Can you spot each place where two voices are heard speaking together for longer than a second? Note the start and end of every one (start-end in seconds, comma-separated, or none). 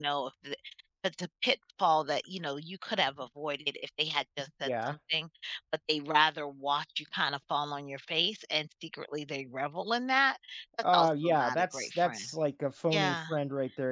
10.9-12.3